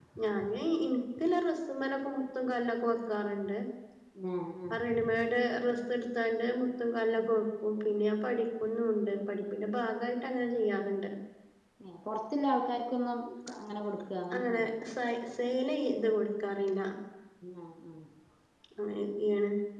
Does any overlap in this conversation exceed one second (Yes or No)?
No